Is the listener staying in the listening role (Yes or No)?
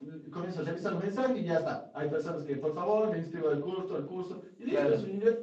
Yes